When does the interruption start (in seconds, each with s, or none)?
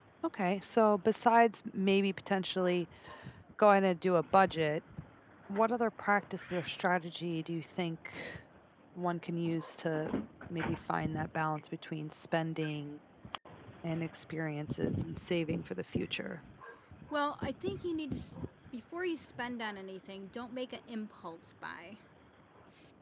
none